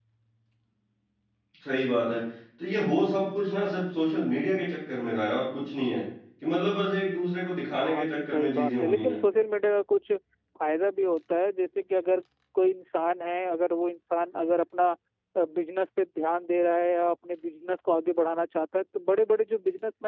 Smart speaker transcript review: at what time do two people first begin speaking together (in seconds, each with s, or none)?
7.7 s